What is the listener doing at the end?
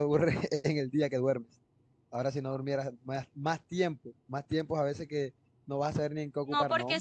taking over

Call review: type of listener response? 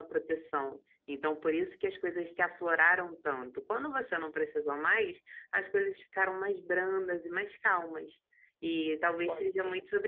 listening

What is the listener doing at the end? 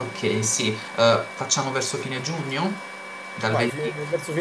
taking over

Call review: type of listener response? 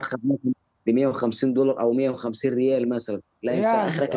listening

